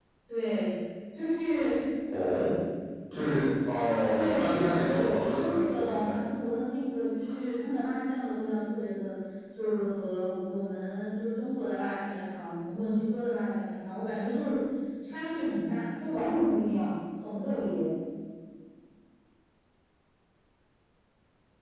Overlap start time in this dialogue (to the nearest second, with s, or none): 4 s